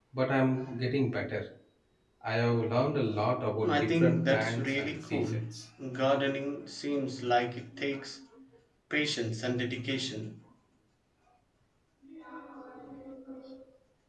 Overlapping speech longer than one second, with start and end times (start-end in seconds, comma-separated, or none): 3.6-5.3